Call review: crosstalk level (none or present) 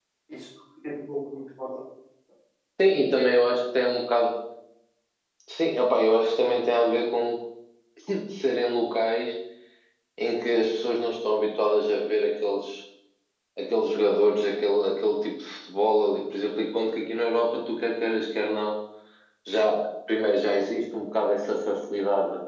none